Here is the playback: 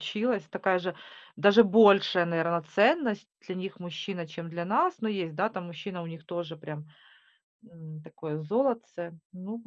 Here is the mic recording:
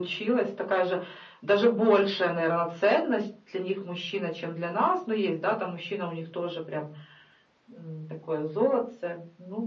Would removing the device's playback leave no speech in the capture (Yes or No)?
Yes